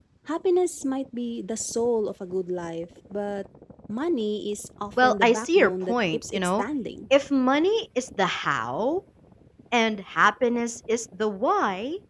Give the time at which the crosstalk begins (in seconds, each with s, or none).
5.0 s